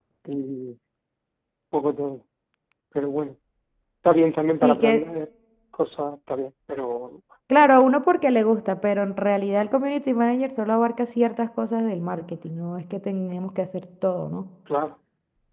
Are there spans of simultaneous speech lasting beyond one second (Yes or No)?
No